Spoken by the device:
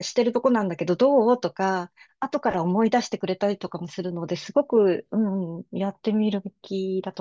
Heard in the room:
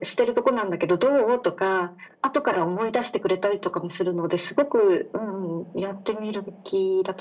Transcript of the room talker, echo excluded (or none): none